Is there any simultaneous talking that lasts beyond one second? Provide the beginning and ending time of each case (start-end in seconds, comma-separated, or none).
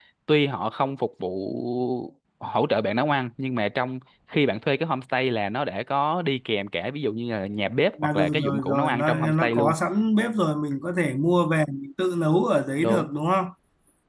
8.1-9.8